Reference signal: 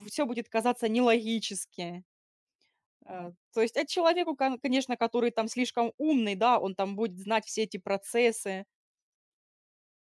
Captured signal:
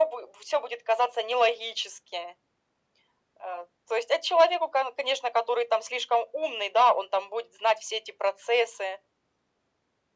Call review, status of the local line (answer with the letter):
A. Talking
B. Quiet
B